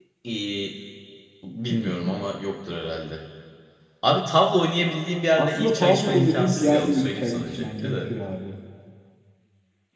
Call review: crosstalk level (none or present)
present